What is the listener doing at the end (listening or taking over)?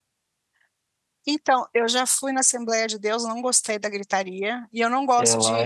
listening